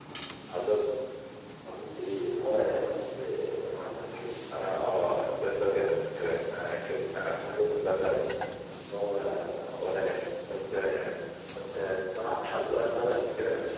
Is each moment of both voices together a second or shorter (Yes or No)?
No